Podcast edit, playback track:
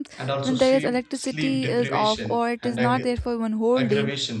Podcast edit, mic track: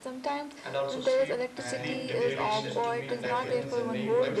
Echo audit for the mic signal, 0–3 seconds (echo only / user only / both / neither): both